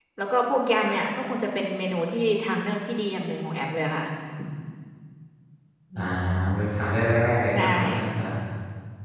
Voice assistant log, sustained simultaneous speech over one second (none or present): none